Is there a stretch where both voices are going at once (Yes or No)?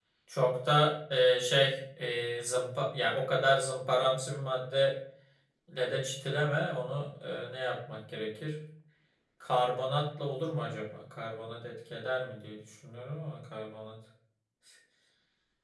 No